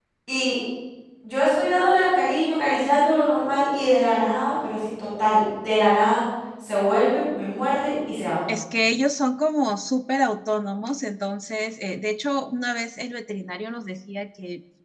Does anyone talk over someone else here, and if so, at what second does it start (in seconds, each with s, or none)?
none